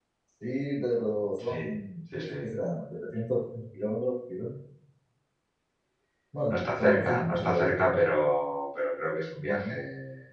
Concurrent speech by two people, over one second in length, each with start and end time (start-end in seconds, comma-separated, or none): 6.5-7.8